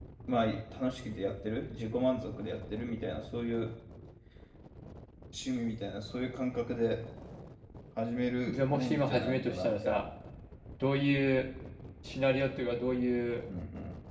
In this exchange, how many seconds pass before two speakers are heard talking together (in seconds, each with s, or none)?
8.5 s